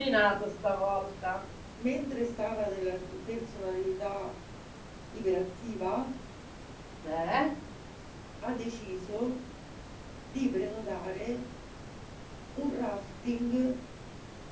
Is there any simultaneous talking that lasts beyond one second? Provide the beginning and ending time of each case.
none

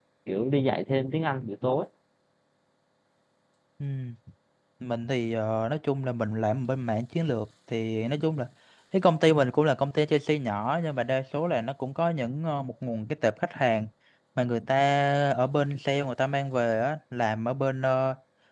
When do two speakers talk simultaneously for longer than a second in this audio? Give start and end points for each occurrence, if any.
none

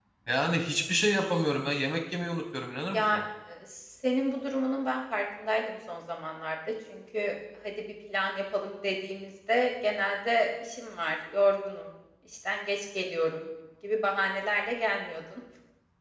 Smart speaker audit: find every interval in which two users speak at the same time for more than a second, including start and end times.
none

